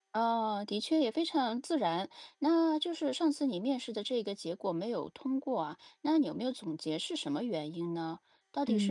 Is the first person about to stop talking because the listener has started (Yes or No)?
Yes